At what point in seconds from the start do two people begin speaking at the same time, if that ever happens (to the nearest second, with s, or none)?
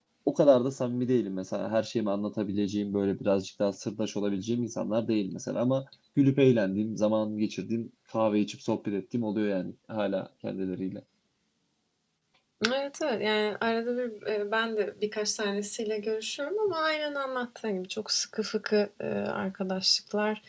none